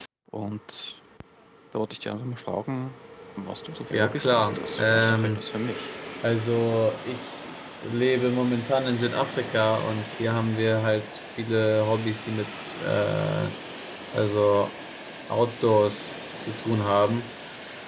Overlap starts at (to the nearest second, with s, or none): 4 s